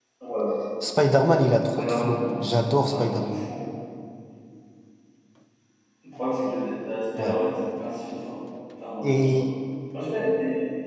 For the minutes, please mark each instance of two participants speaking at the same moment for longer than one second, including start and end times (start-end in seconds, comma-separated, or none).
1.4-3.5